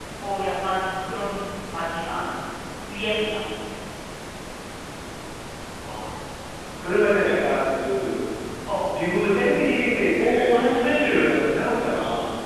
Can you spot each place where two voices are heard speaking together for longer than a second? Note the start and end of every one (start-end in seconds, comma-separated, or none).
10.2-11.5